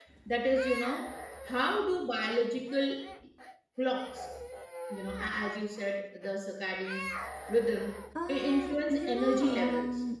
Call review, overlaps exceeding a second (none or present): present